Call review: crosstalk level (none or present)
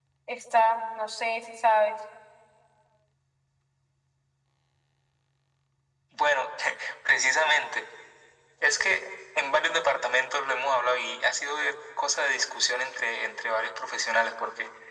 none